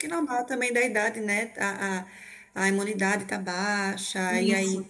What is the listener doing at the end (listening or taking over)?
listening